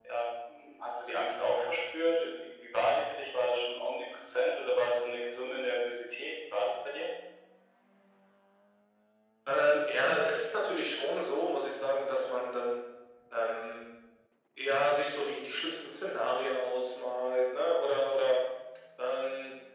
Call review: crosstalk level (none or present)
none